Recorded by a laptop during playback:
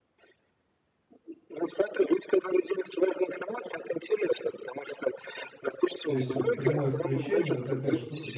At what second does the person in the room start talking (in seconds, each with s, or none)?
6.1 s